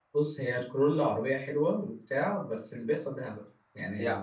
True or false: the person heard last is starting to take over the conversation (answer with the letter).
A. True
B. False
A